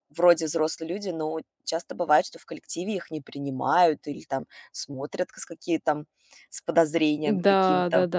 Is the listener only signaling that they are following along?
No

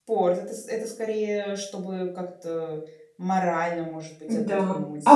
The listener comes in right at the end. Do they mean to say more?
Yes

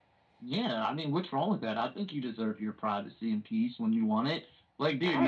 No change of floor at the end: Yes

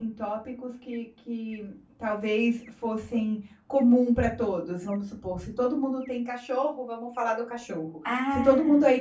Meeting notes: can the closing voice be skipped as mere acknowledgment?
Yes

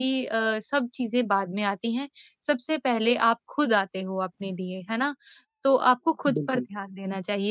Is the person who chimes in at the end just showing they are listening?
Yes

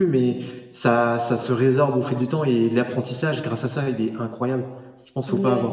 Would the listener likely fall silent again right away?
No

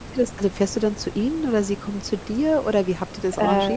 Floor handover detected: Yes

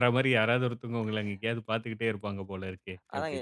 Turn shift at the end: Yes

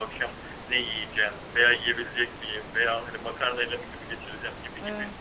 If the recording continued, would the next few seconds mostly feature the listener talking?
No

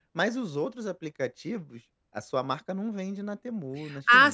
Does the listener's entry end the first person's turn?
Yes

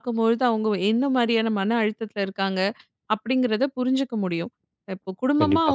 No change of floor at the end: Yes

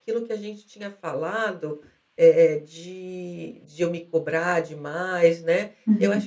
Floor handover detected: No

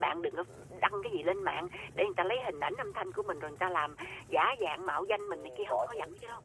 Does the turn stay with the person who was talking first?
No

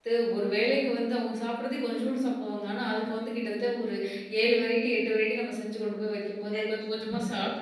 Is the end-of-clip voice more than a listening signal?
Yes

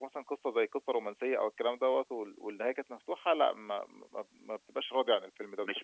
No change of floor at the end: No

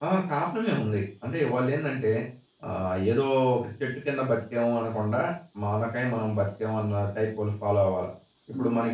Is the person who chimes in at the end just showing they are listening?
Yes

